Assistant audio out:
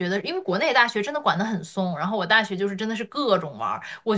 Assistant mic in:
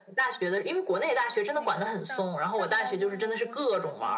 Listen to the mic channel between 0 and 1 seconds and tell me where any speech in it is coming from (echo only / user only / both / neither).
echo only